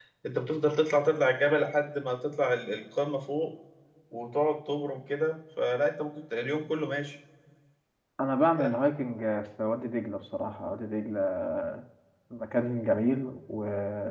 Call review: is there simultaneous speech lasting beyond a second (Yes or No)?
No